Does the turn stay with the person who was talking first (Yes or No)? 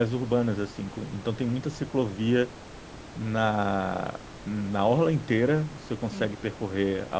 Yes